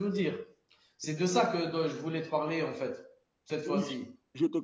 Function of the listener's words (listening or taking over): taking over